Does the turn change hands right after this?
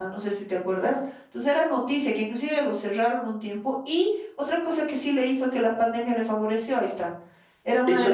Yes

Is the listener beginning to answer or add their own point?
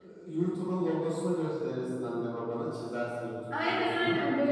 Yes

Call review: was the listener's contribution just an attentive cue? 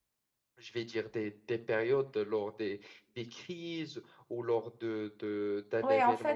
No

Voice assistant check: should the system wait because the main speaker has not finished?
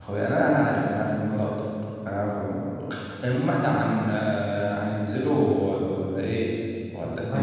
No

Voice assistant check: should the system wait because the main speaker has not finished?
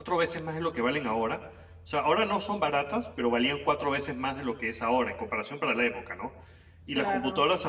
Yes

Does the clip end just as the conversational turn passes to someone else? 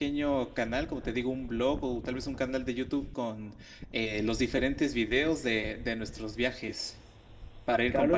Yes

